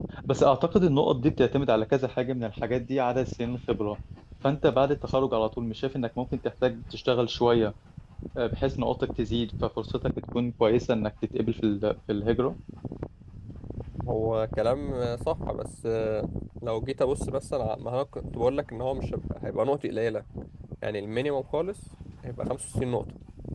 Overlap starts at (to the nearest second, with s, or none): none